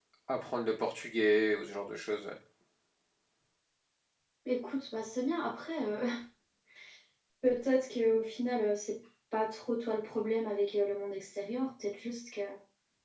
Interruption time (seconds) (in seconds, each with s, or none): none